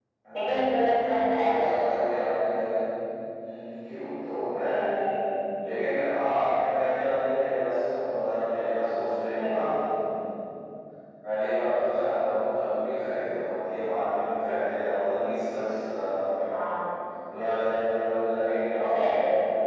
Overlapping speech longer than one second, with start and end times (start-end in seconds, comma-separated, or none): none